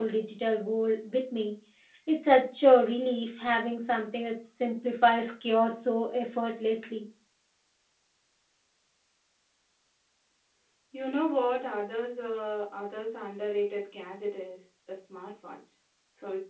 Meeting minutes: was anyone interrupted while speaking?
No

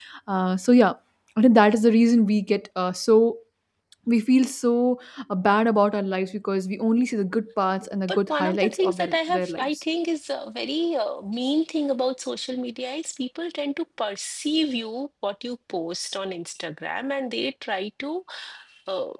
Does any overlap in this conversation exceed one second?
Yes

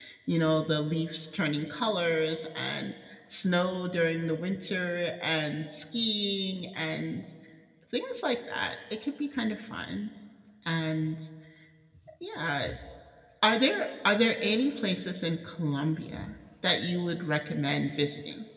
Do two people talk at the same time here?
No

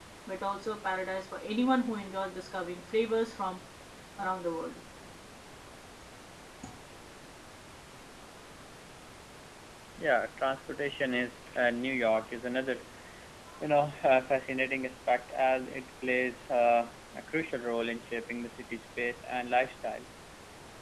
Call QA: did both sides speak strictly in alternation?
Yes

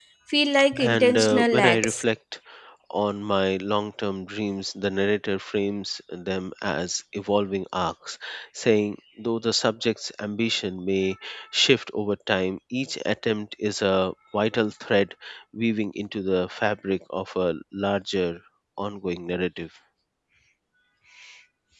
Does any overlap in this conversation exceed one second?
Yes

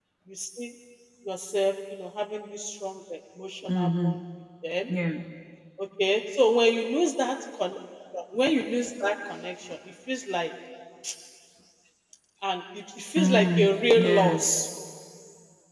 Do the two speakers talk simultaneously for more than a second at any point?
Yes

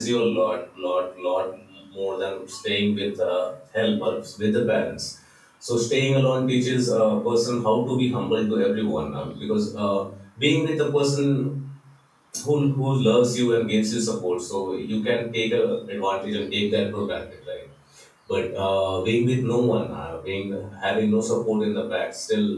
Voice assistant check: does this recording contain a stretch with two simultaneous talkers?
No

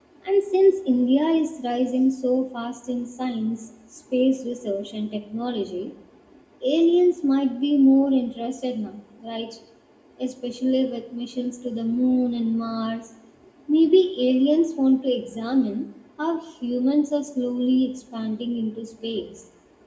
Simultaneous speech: No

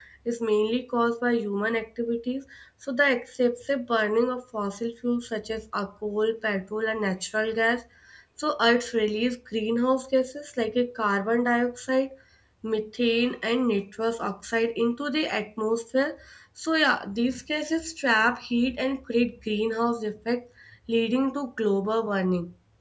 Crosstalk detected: No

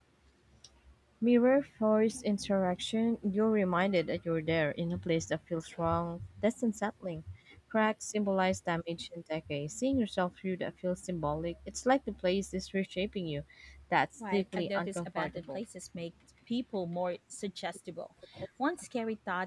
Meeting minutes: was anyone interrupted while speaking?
Yes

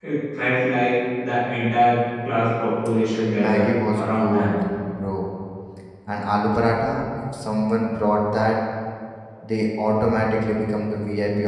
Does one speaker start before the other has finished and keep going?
Yes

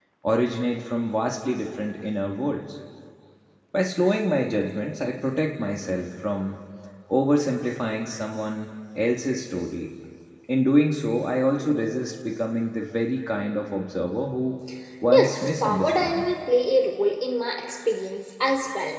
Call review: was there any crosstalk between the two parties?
Yes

